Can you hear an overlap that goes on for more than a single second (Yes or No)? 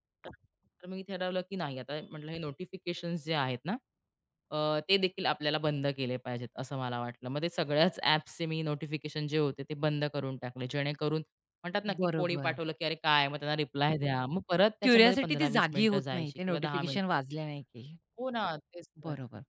Yes